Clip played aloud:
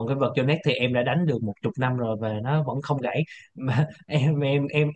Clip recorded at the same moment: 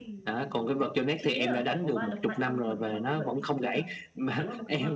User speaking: Yes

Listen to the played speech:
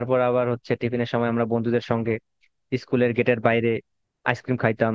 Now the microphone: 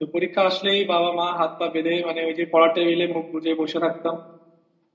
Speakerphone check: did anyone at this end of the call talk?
Yes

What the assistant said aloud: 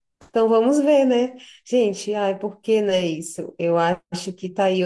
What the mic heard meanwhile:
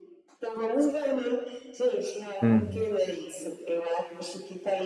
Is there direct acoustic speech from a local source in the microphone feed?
Yes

